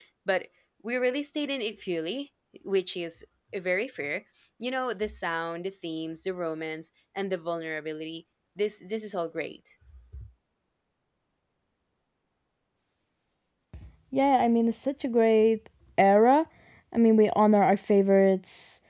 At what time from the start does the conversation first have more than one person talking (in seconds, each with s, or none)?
none